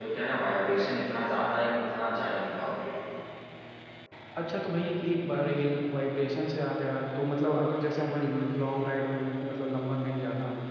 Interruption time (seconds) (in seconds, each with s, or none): none